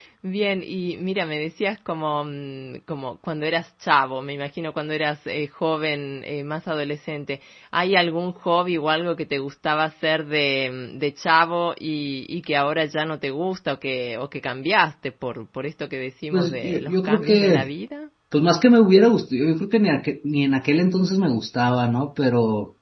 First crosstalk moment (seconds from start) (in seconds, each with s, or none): 16.3 s